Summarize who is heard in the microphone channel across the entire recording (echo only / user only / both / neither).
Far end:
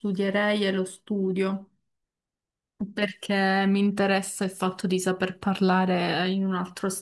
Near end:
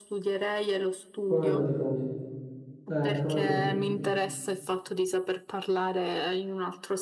both